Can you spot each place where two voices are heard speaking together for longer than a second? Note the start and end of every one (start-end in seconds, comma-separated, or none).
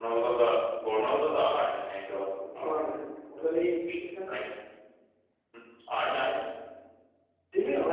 none